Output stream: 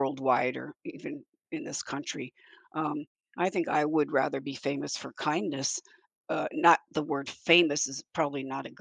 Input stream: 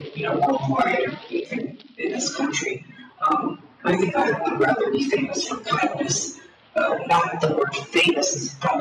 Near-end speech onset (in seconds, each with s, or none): none